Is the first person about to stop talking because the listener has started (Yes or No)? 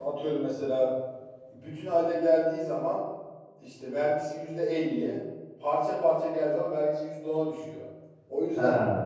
No